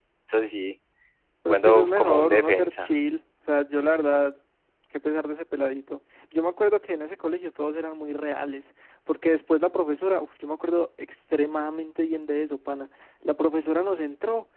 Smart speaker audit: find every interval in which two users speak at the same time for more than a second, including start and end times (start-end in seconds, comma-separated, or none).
1.5-2.9